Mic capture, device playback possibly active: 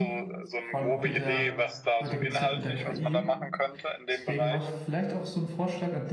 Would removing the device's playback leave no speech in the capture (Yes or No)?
No